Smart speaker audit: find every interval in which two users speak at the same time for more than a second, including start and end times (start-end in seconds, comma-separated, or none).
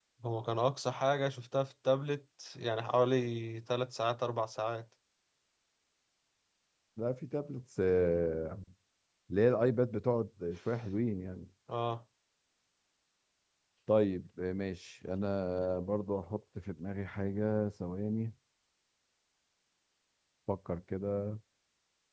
none